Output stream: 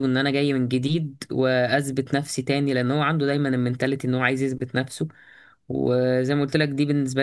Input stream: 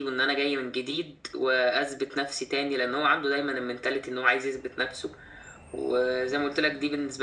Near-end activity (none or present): none